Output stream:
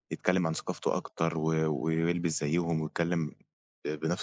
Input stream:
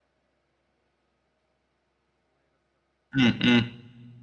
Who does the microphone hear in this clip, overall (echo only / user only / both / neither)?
user only